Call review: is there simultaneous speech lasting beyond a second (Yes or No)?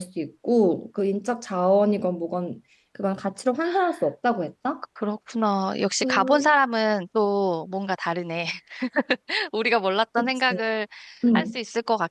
No